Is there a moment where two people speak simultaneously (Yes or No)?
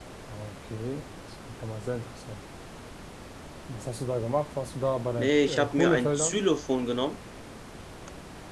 Yes